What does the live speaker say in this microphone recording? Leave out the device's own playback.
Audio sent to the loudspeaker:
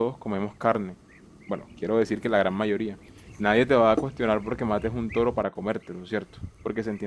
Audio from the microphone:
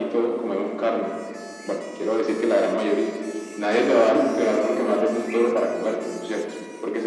none

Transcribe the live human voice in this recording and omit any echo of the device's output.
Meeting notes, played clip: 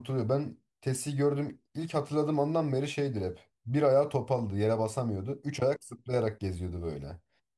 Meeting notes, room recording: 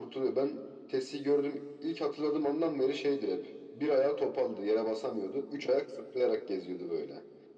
none

